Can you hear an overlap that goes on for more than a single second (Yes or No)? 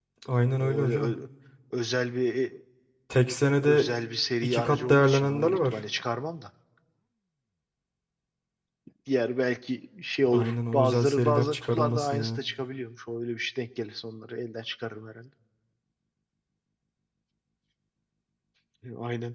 Yes